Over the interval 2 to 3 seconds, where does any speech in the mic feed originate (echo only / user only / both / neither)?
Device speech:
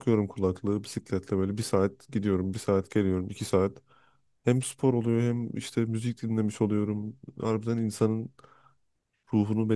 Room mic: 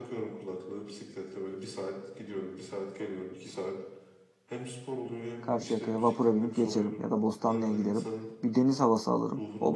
echo only